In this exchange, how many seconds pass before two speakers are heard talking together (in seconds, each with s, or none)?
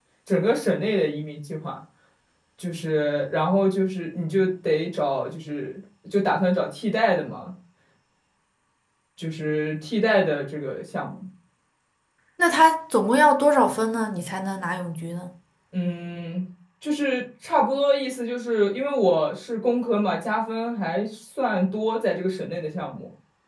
none